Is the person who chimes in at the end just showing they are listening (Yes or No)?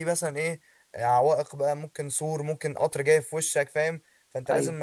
Yes